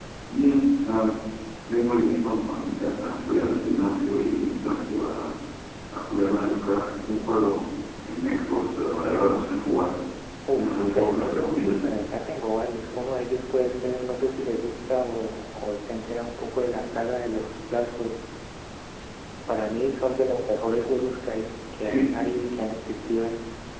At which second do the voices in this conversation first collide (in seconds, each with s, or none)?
10.5 s